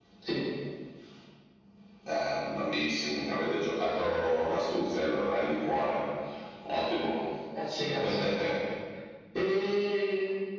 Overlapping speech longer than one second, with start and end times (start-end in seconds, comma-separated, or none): none